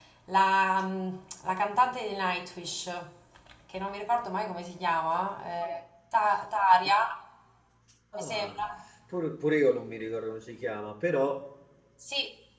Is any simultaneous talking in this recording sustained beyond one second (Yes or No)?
No